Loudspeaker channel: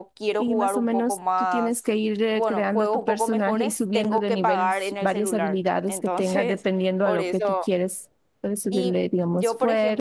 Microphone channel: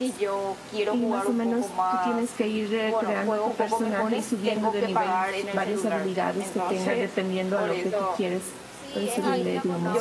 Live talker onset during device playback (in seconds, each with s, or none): 8.7 s